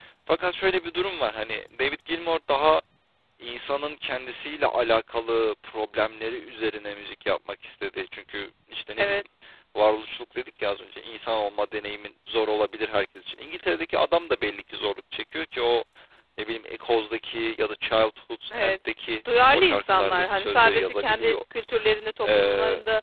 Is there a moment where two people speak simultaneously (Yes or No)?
Yes